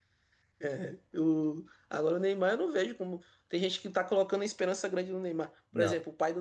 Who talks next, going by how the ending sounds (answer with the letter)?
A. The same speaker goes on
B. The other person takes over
A